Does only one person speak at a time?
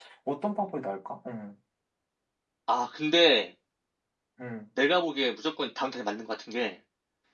Yes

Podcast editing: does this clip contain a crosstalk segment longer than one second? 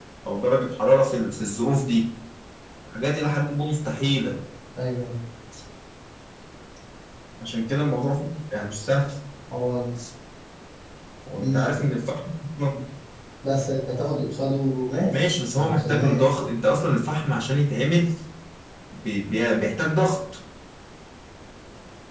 Yes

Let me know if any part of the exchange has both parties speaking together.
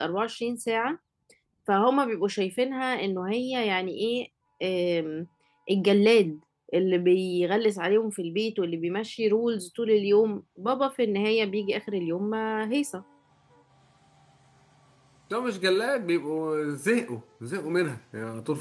No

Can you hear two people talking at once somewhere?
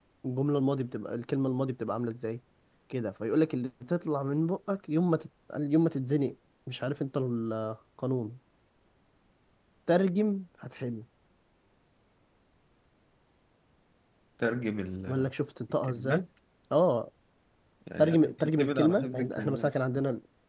Yes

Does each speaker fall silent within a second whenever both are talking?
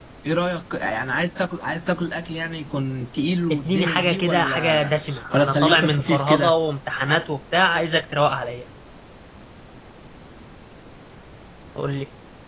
No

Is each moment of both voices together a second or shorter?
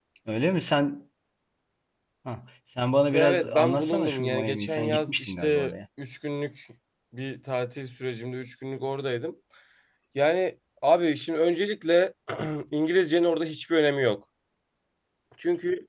No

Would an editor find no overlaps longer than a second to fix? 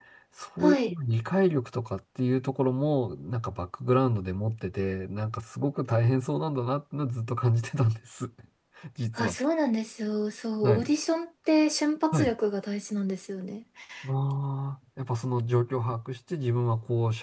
Yes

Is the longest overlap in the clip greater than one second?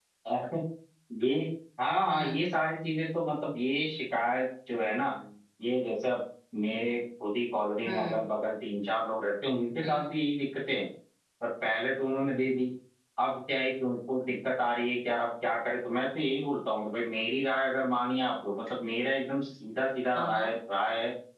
No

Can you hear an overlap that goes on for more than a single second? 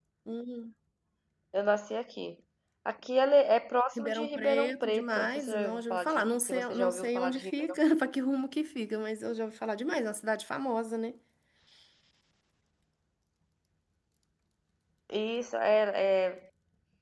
Yes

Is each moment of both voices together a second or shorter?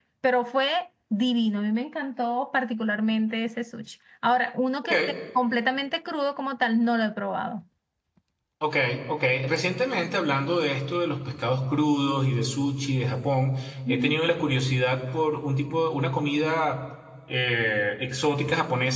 Yes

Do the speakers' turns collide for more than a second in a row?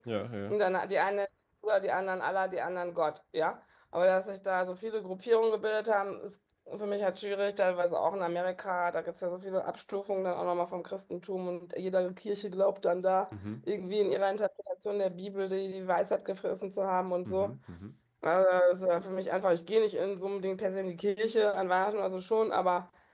No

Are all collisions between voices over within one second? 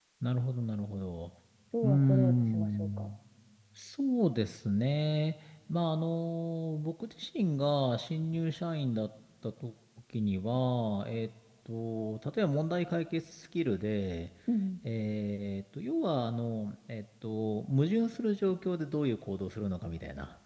No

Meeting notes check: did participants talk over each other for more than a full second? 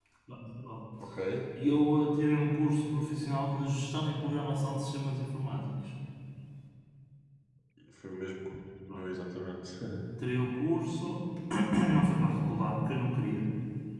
No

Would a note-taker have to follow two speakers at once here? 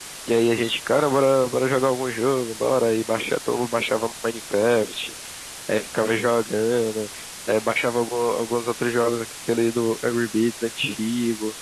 No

